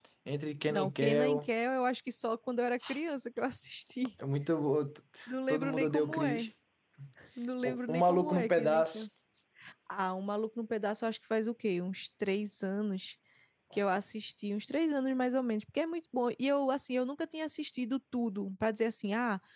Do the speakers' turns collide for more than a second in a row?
Yes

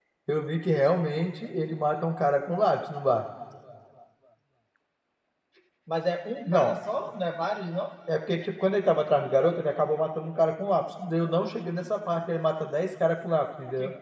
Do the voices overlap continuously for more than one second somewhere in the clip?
No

